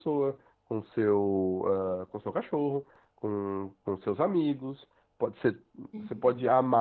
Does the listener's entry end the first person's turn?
No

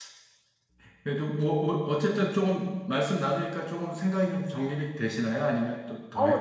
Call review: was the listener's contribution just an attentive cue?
No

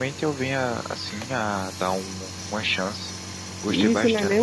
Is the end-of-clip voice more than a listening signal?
Yes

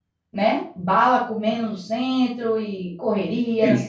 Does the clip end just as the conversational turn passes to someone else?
Yes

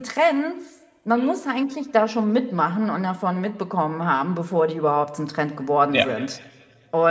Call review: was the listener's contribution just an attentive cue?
Yes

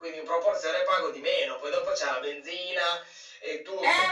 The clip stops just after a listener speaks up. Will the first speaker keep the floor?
No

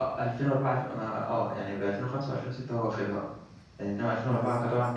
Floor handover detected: No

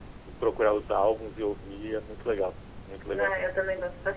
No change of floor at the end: No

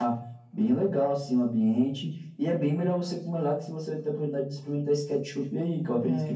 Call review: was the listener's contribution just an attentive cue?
No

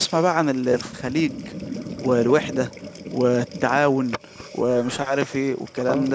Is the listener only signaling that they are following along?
No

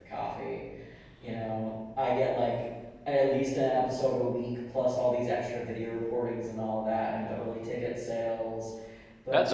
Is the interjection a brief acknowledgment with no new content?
No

